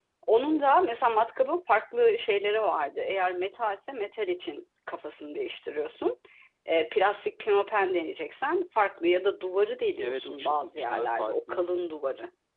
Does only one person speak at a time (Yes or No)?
No